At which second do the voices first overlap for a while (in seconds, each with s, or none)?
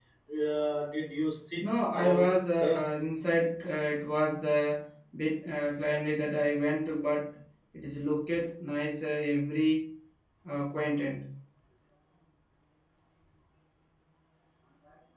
1.6 s